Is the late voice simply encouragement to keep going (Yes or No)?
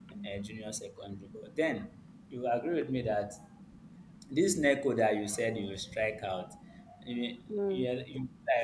Yes